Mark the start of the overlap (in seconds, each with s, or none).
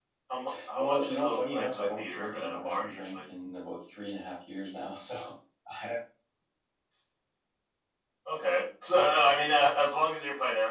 0.8 s